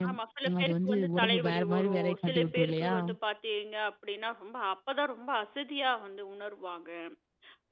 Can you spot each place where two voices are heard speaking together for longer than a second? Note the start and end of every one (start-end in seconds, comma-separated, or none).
0.6-2.9